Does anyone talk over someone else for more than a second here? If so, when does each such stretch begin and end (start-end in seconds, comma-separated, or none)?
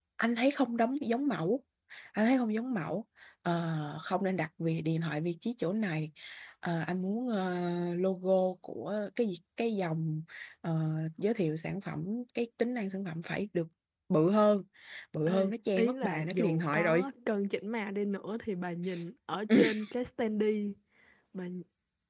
15.3-17.1